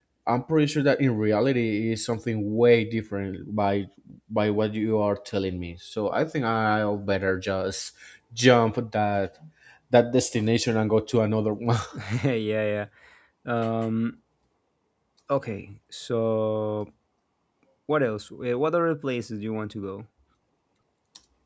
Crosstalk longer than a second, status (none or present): none